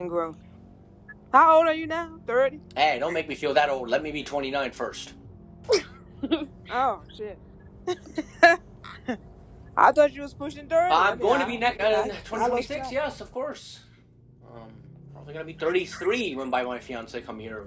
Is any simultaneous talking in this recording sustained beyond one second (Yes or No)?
Yes